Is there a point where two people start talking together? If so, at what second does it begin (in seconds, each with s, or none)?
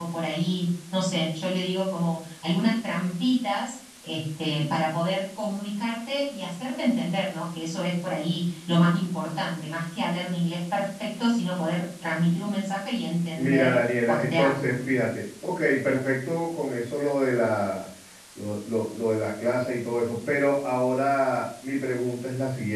13.3 s